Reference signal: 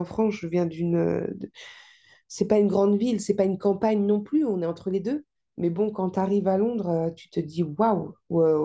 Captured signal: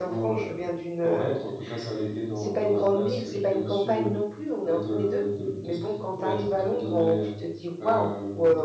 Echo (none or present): present